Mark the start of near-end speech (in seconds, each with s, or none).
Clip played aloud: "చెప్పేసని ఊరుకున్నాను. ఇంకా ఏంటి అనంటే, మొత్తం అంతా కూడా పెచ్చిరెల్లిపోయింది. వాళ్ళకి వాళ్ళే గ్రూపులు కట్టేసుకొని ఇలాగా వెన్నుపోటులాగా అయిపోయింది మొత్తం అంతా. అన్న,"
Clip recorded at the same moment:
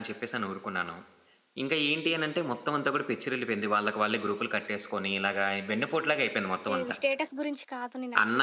6.7 s